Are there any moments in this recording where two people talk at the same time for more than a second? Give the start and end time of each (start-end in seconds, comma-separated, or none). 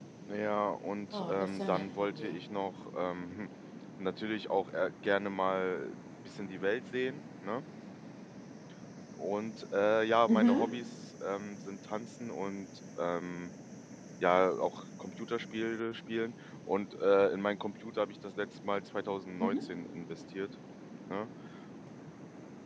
1.1-2.4